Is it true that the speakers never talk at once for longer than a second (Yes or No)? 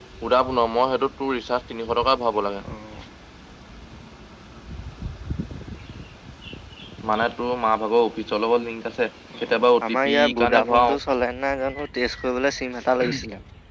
No